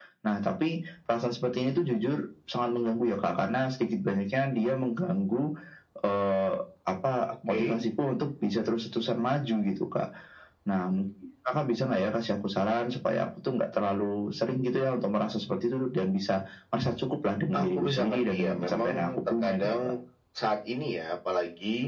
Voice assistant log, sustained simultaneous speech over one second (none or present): present